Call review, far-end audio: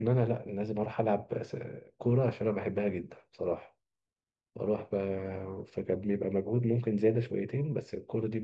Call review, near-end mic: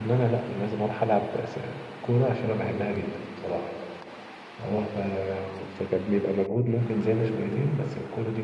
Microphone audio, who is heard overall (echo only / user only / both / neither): echo only